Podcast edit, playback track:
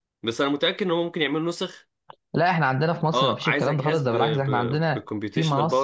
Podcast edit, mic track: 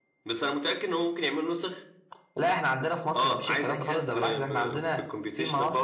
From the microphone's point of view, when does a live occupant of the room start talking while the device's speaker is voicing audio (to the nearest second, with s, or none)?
none